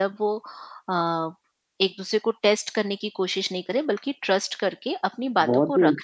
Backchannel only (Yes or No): No